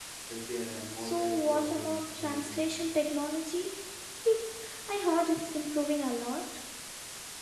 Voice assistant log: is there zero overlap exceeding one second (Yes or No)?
No